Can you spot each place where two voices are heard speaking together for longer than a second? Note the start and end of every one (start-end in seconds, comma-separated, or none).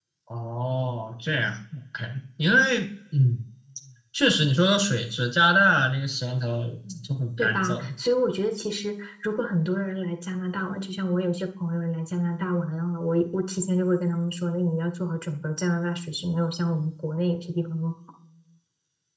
none